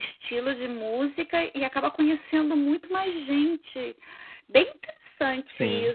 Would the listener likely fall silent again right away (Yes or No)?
Yes